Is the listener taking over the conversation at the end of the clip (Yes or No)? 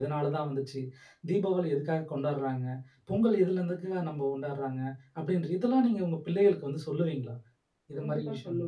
Yes